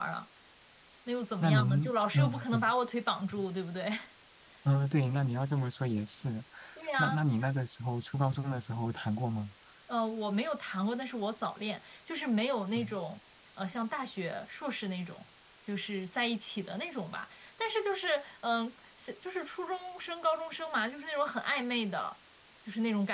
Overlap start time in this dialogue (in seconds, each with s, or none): 1.4 s